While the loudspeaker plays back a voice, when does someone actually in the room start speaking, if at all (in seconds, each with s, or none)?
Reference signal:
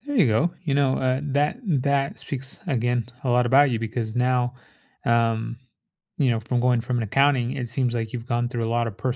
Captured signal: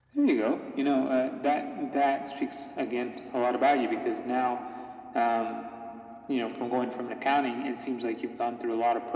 none